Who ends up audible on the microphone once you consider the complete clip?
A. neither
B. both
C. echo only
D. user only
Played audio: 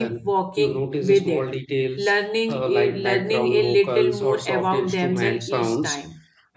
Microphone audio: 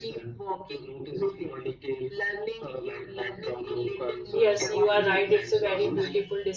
B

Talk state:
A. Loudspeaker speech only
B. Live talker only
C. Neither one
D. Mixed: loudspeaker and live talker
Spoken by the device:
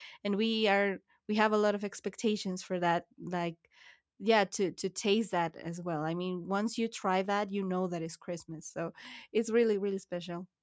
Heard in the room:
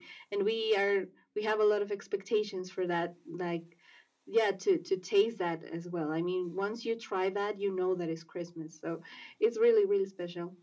A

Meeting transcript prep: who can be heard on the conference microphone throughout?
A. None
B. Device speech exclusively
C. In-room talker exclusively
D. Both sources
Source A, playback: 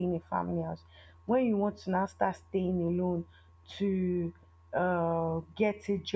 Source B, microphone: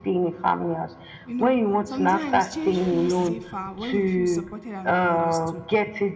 D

